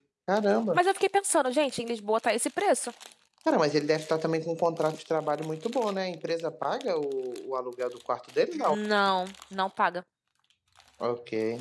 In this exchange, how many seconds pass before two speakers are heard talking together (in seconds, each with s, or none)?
none